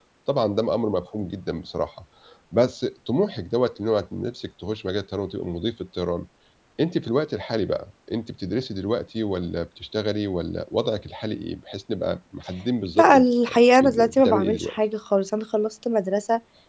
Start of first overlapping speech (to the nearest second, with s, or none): 13 s